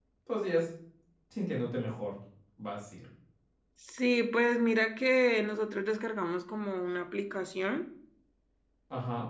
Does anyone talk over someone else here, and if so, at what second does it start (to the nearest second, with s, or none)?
none